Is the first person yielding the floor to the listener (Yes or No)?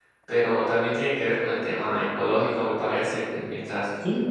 No